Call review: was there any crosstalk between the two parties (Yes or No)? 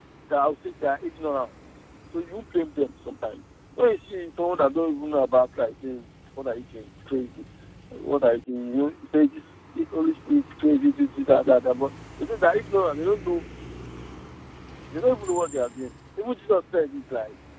No